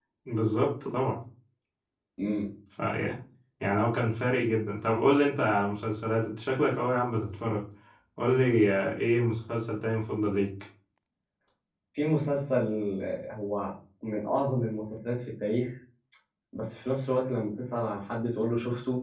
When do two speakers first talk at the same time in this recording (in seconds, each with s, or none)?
none